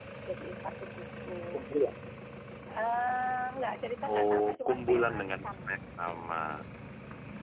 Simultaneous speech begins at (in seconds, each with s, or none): 4.0 s